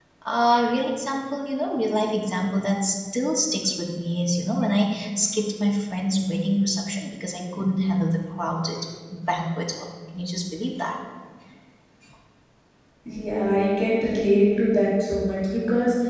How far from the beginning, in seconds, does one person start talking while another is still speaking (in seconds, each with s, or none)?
none